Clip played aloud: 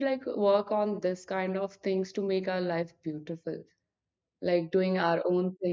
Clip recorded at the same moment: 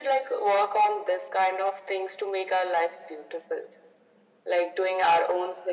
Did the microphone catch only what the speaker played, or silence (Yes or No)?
Yes